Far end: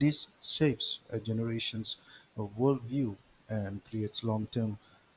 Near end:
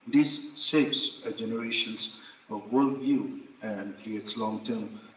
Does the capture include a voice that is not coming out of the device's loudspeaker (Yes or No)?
No